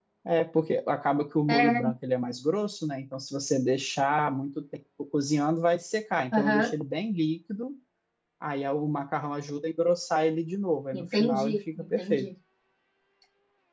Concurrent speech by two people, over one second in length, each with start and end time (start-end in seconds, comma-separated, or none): 10.9-12.2